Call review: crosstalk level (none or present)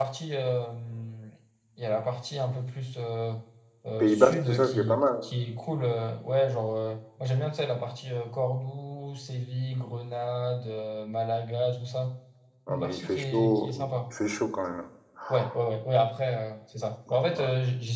present